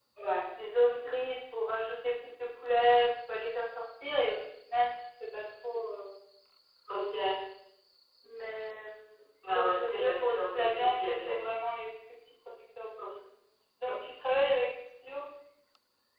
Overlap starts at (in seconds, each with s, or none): 9.4 s